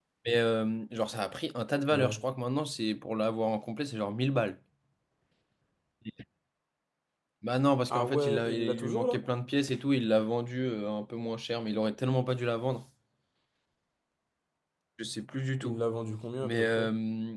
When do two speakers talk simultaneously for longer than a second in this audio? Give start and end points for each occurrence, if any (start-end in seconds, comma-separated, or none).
7.9-9.2